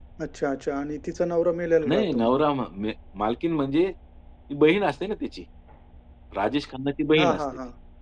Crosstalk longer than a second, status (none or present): none